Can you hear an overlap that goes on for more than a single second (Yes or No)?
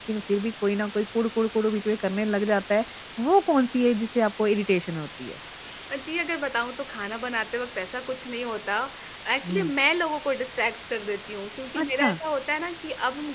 No